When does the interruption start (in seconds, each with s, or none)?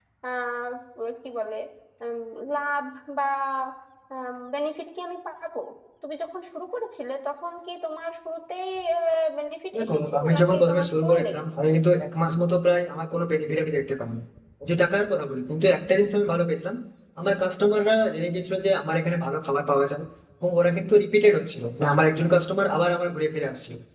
9.8 s